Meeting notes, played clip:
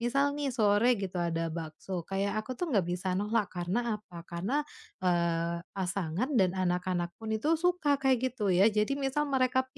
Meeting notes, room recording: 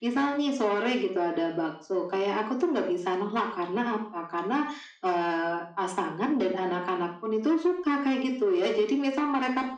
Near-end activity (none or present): none